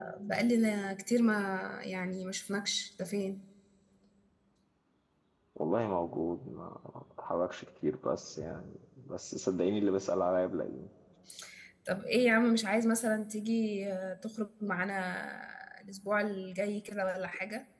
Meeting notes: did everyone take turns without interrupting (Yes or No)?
Yes